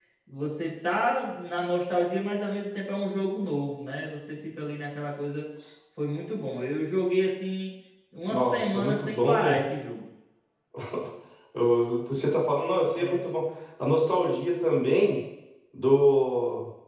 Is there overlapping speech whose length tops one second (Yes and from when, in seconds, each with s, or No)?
Yes, from 8.3 s